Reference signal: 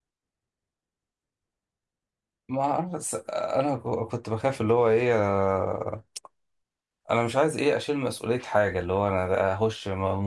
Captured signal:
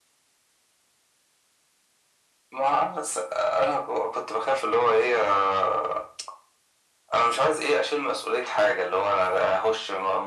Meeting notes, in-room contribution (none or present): none